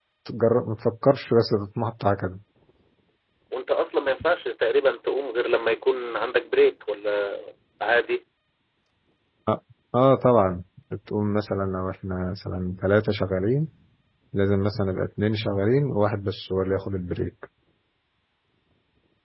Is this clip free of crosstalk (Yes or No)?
Yes